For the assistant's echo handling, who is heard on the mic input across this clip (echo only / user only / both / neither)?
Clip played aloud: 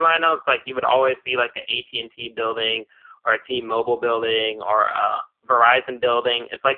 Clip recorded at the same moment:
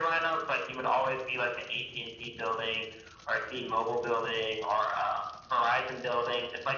echo only